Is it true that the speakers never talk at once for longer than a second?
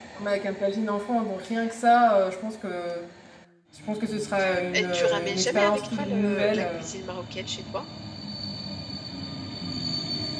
No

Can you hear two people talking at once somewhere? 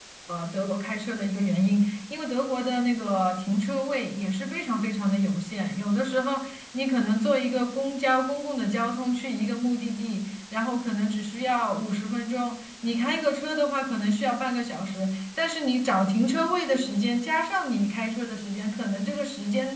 No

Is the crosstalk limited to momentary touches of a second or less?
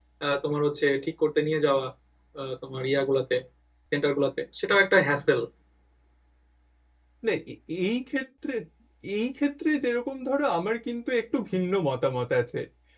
Yes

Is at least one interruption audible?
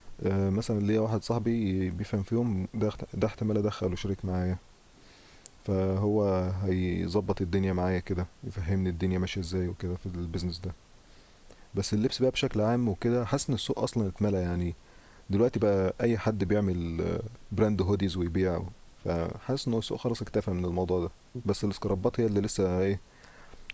No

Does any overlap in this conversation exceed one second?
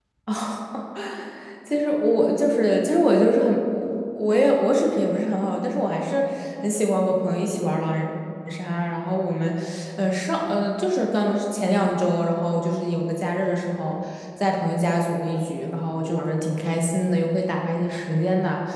No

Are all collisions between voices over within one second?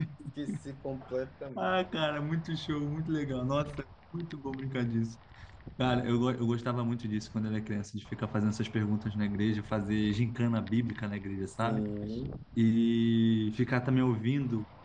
Yes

